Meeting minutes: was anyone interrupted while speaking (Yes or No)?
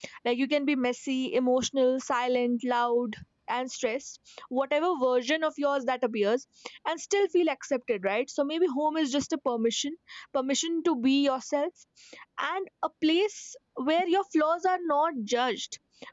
No